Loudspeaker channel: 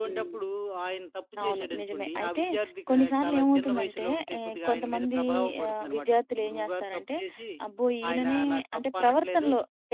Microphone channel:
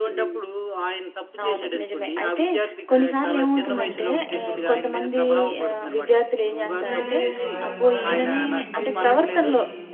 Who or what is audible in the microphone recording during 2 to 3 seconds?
echo only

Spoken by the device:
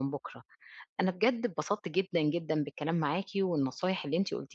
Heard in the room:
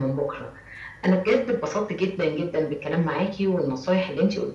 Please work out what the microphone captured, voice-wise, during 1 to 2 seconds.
echo only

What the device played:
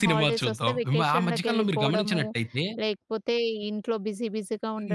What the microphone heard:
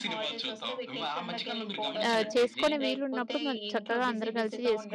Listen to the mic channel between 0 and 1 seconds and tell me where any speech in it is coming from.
echo only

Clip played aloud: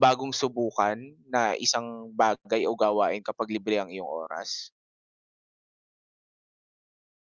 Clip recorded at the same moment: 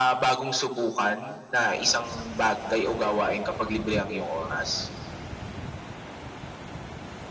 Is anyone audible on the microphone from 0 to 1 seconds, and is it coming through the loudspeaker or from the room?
echo only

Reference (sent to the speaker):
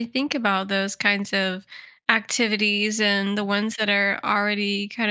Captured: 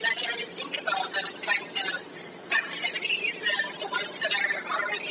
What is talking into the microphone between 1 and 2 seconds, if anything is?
echo only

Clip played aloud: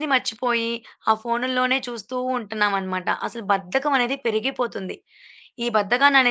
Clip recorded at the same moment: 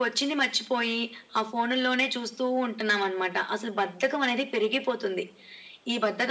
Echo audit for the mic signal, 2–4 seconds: echo only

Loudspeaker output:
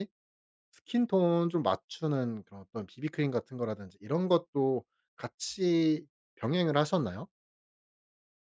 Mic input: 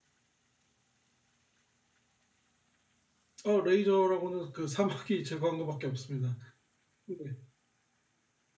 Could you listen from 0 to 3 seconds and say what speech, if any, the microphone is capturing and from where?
neither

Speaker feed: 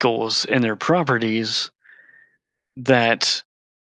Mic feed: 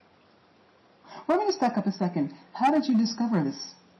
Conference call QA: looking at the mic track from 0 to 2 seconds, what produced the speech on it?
user only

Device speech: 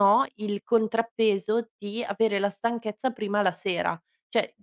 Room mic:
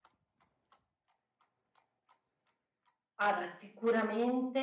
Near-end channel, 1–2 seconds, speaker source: neither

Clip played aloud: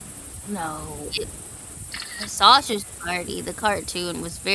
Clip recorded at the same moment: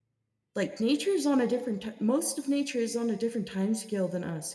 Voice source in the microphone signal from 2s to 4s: user only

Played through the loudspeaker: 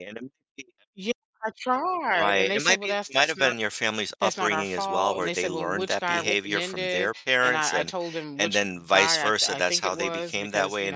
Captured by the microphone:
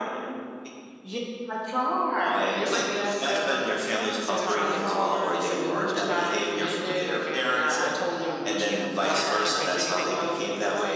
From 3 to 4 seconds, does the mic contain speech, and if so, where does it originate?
both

